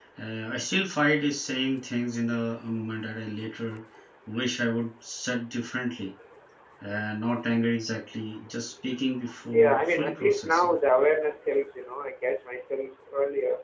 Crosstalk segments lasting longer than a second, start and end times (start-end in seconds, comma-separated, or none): 9.5-10.8